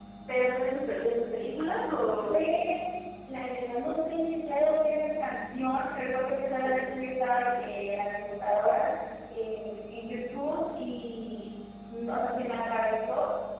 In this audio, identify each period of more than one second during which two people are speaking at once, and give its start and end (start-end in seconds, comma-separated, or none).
none